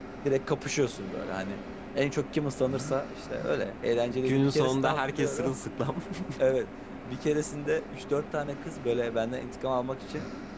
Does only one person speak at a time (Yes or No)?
No